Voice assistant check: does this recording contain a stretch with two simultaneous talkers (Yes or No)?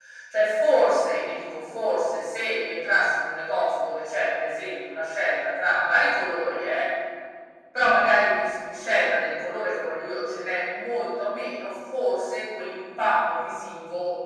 No